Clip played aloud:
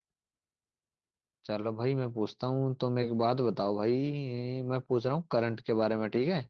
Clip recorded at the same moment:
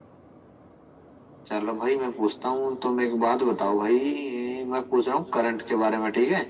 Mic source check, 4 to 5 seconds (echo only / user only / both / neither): echo only